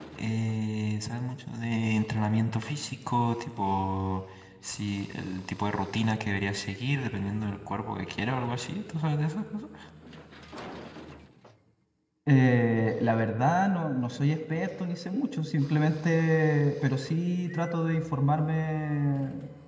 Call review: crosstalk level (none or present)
none